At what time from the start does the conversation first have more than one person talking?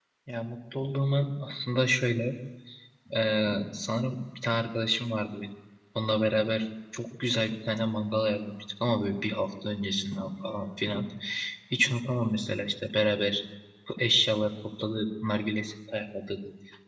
none

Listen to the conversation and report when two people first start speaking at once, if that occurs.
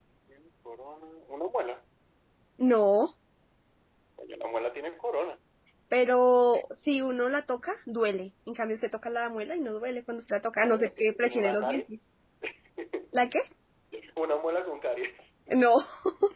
10.6 s

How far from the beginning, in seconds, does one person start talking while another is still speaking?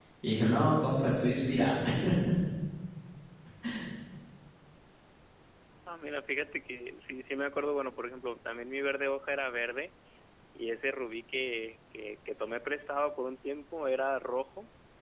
none

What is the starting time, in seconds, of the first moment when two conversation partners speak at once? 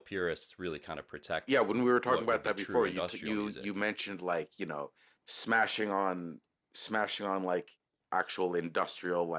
2.0 s

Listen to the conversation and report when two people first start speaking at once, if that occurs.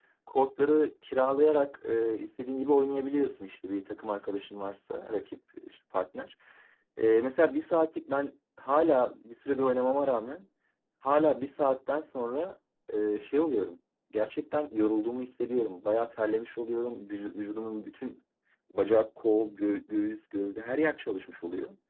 none

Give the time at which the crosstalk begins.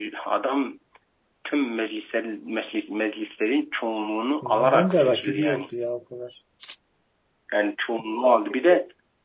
4.4 s

